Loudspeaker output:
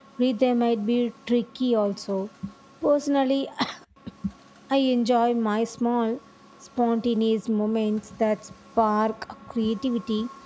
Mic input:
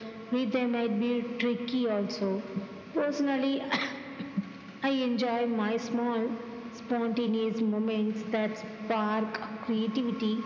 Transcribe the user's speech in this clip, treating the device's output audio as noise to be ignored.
none

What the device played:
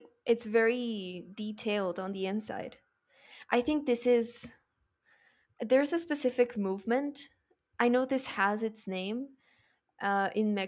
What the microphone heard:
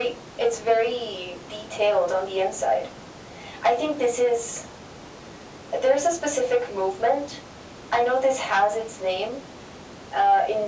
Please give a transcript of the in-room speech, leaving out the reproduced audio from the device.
none

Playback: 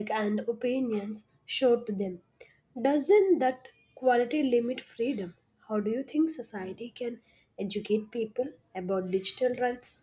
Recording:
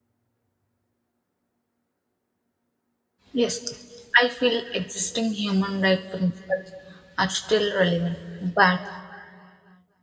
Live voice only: Yes, I feel existing human rights principles are still relevant, but

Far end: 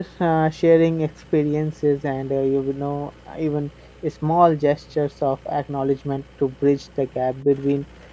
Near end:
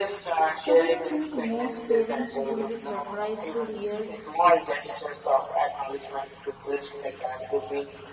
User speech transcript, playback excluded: So, do you think most parents will be surprised to hear

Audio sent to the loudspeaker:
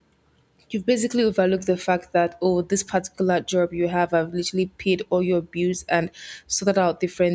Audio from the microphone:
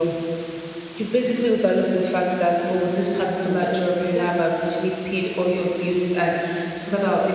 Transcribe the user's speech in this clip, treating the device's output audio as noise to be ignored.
even needed. But then

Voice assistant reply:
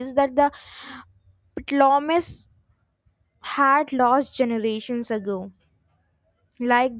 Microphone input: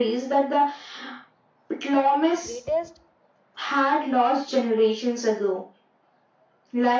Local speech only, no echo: greatest,

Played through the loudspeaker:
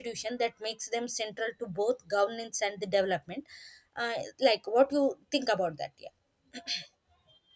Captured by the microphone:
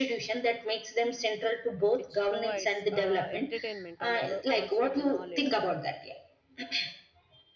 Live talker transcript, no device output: which provides uh, entertainment and al- also the knowledge.

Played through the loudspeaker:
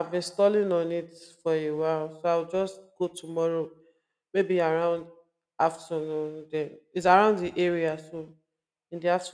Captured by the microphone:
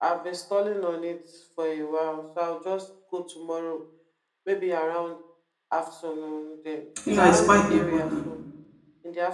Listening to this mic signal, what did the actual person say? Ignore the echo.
Yeah, it's quite important.

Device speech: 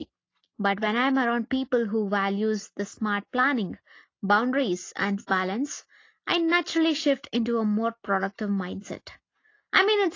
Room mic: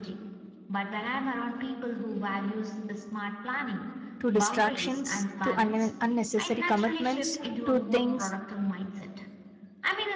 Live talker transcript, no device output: to distractions, to un- unnecessary commitments, to things

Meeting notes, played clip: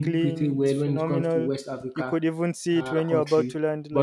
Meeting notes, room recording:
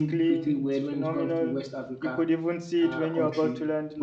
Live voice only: none

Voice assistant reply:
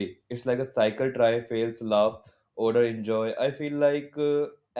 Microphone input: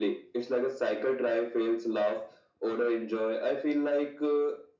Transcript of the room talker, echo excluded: none

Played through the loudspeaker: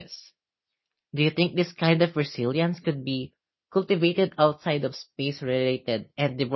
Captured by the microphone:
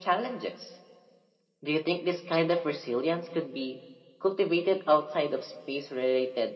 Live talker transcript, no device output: none

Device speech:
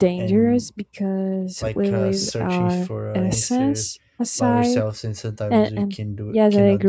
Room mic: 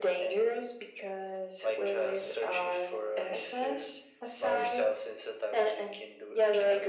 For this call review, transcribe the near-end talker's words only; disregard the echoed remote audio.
none

